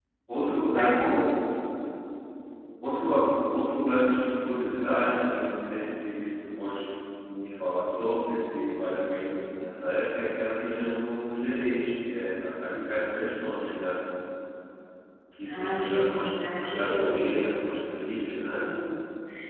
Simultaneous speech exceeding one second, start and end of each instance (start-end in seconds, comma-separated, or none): 15.5-17.4